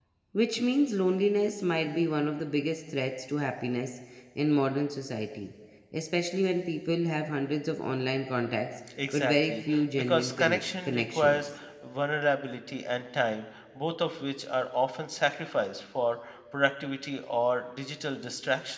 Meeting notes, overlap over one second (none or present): present